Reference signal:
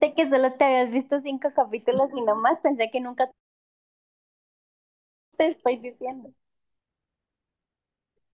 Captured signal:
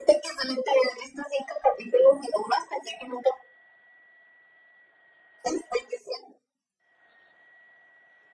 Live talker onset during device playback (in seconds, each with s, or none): none